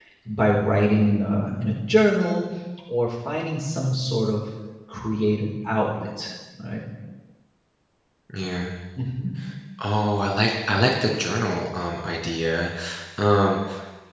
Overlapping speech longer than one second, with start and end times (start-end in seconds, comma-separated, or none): none